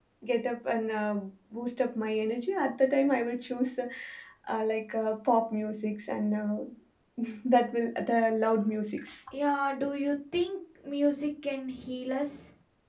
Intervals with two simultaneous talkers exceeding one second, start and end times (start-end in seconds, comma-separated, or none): none